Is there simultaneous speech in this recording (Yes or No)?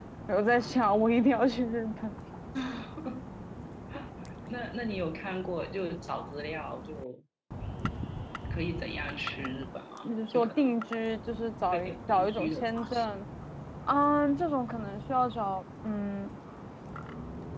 Yes